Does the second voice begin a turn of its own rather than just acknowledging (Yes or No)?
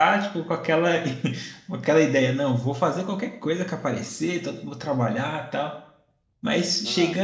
No